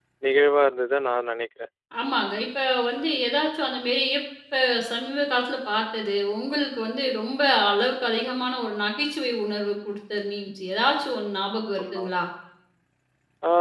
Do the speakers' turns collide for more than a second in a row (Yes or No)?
No